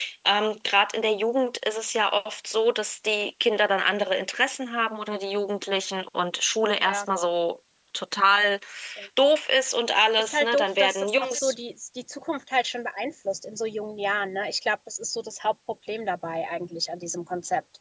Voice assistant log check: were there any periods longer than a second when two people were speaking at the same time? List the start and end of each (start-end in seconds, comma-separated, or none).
10.2-11.5